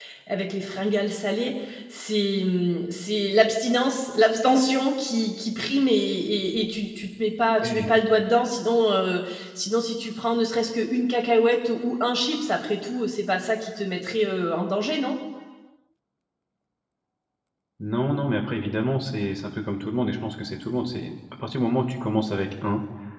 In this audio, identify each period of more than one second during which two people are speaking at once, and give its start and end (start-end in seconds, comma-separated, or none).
none